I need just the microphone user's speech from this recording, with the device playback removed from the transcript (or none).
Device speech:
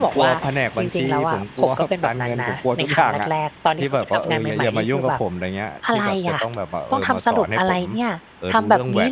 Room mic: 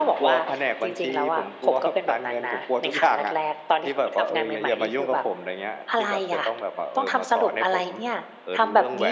none